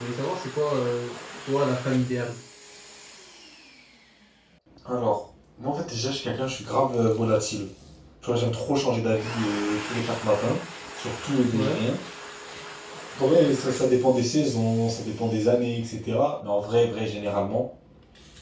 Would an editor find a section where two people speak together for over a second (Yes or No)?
No